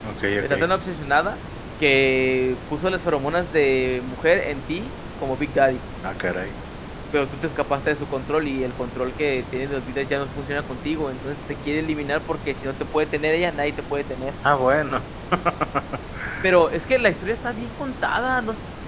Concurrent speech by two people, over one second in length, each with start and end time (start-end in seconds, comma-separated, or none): none